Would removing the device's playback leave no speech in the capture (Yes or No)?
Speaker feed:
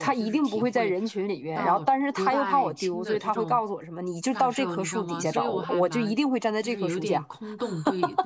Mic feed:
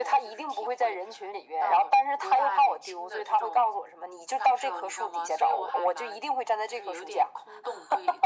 Yes